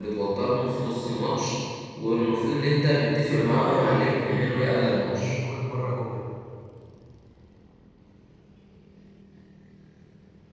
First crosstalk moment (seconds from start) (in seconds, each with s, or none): 3.3 s